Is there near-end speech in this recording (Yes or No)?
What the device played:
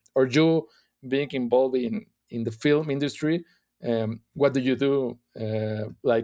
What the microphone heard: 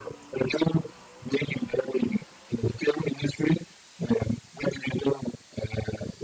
No